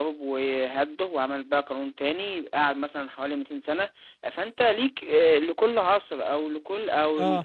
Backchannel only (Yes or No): Yes